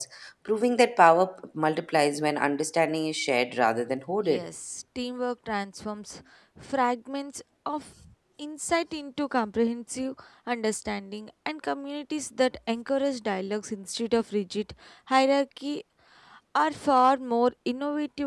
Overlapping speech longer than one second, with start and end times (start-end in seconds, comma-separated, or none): none